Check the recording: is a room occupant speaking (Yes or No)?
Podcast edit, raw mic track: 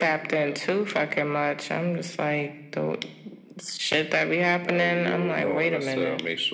No